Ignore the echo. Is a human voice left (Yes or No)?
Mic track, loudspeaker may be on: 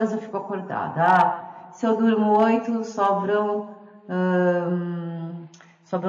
No